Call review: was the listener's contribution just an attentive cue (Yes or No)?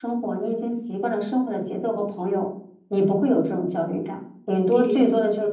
Yes